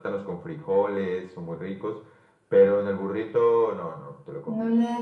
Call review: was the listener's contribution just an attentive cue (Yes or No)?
No